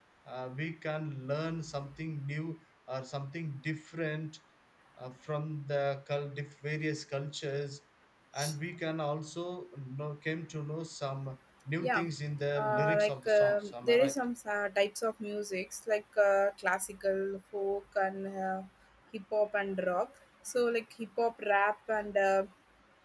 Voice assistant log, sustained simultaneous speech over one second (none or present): present